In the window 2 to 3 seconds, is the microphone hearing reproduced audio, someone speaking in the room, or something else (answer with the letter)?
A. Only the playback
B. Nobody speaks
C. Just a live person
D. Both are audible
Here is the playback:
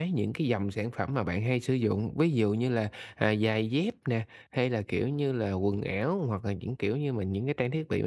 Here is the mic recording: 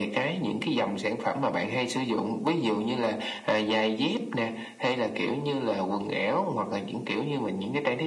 A